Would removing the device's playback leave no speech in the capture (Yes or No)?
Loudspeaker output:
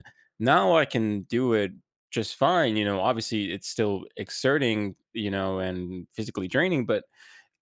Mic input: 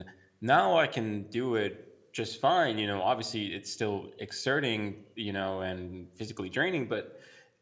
Yes